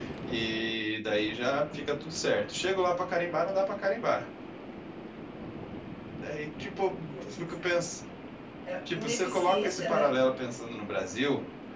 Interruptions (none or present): present